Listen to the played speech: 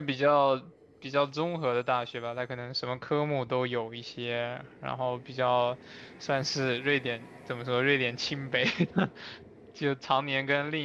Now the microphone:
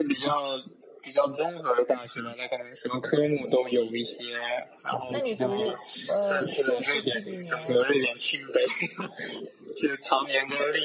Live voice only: 那你读呃硕士第几年呀？

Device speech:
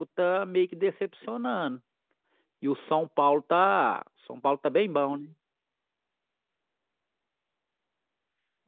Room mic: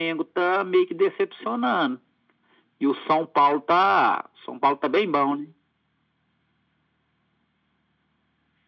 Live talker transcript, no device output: none

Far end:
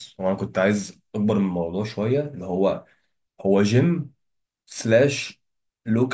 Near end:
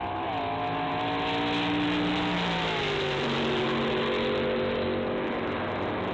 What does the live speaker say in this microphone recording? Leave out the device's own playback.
none

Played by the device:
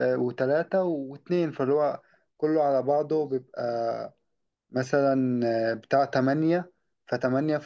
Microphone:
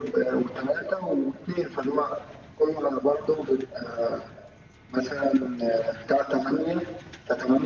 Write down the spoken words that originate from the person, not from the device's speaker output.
none

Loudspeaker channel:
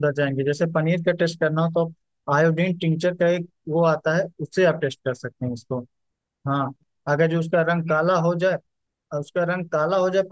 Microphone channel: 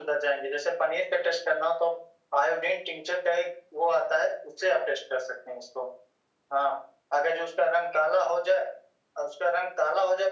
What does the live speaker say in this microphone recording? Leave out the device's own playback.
none

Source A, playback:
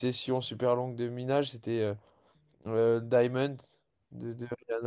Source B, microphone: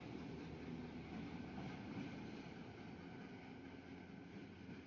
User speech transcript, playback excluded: none

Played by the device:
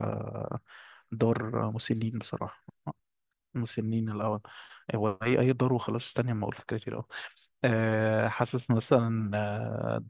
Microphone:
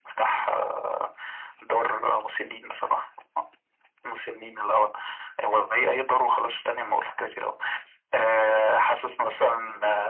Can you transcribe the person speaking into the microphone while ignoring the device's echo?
none

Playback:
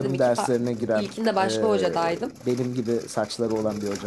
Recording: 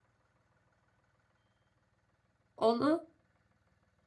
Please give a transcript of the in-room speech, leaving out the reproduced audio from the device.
Onu

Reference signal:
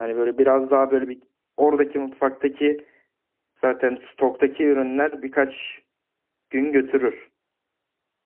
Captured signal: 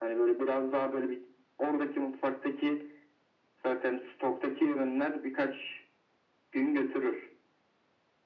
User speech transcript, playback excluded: none

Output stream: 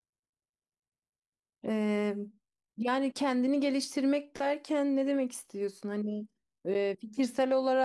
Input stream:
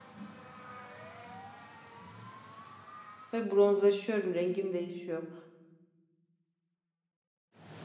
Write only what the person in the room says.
Ve bronzlaşıyorum. Rengim değişiyor.

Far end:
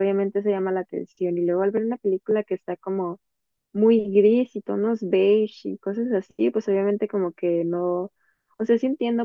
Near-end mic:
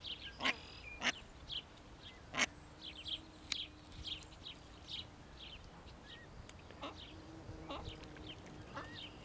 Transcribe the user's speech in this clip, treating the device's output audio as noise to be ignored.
none

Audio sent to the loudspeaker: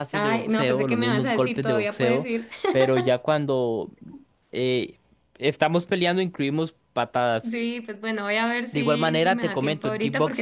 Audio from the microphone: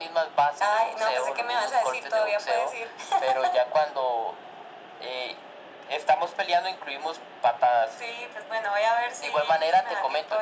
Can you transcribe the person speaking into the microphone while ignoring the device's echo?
none

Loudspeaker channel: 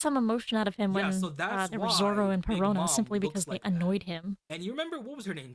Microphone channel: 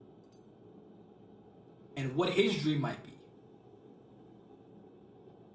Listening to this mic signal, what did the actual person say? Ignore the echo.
and what his dream might be?

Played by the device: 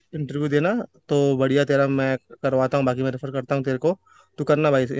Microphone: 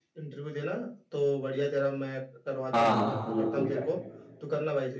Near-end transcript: हाँ हाँ सही है सही है यार

